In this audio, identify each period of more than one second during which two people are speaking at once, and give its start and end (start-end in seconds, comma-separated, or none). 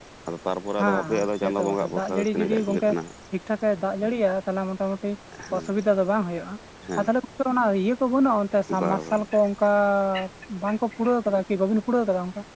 0.8-2.9